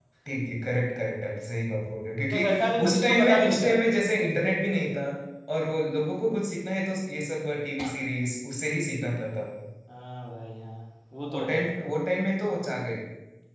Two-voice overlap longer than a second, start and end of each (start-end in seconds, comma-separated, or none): 2.2-3.8